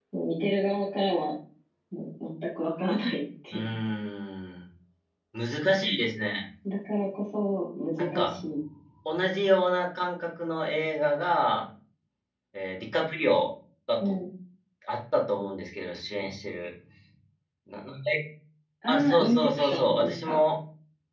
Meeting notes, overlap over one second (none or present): present